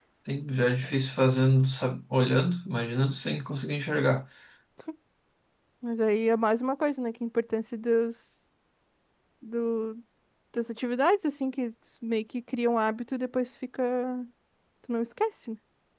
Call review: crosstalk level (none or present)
none